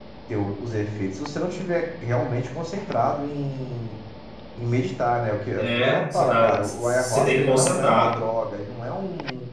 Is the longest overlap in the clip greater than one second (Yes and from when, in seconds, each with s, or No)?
Yes, from 5.6 s